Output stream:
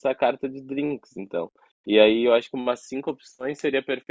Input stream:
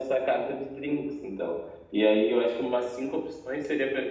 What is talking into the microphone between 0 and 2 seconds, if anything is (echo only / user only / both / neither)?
echo only